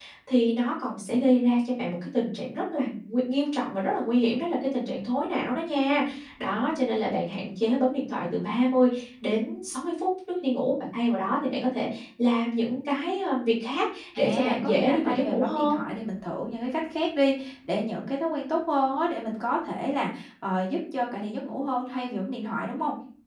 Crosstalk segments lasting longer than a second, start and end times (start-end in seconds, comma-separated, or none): 14.2-15.8